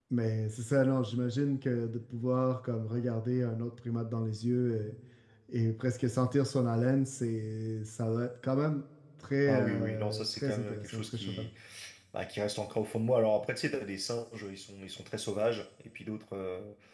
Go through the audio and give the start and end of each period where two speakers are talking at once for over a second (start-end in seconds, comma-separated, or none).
9.5-11.5